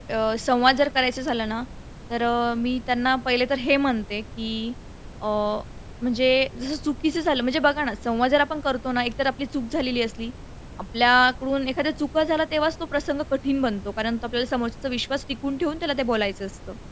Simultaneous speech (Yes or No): No